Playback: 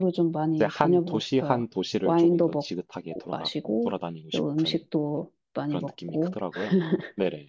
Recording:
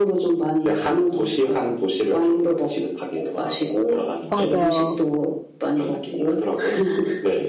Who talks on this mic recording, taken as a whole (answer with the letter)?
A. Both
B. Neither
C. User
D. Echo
A